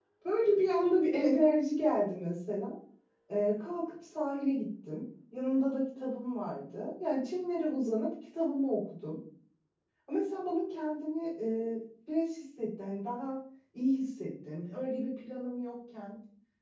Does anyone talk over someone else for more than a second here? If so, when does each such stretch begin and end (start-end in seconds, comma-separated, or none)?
none